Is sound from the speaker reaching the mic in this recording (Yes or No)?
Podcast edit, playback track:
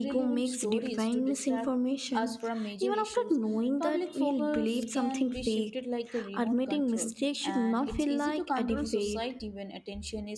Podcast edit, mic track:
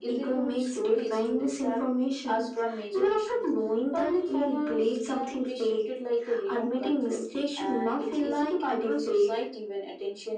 Yes